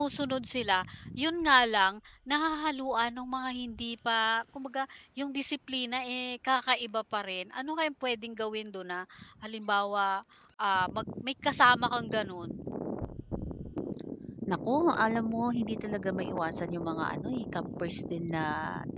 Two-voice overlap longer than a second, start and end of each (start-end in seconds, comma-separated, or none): none